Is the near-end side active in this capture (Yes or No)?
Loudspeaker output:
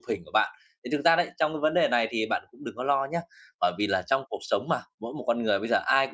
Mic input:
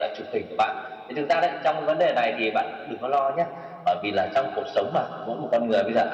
No